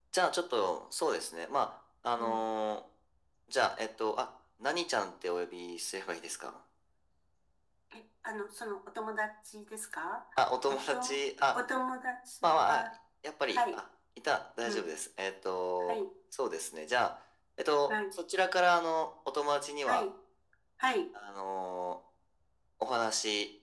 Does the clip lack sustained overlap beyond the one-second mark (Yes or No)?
Yes